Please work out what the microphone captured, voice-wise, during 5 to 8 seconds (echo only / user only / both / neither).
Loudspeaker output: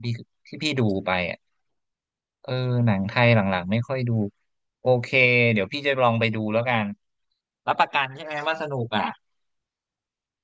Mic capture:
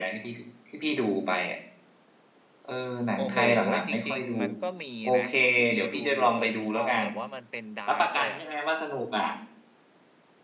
both